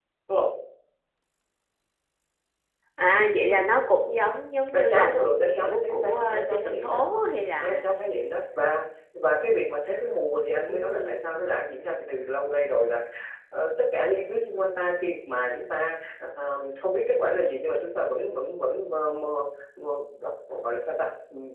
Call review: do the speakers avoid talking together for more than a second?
No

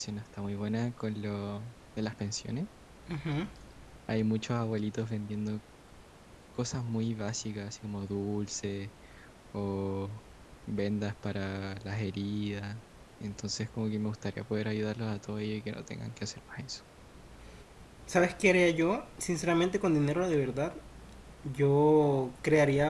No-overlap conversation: Yes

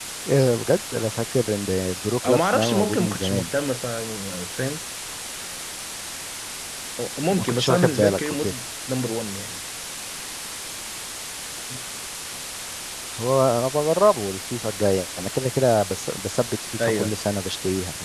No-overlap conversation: No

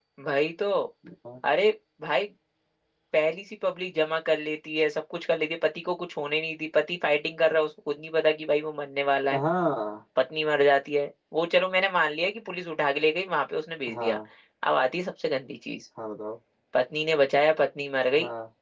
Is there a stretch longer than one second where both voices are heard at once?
No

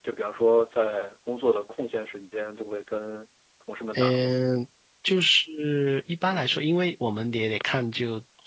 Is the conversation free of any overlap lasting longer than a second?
Yes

